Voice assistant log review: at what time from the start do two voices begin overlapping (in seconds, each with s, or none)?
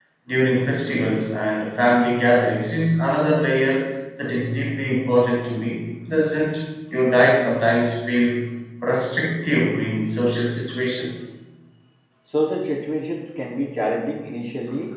none